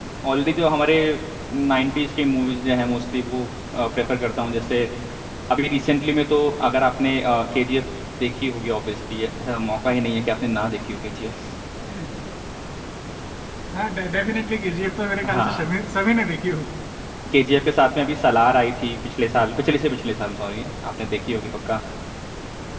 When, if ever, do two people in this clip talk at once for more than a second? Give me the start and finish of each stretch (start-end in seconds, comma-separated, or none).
none